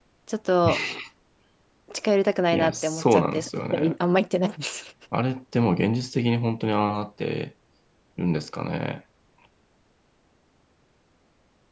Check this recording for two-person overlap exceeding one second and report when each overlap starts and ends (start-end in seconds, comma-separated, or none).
2.5-4.0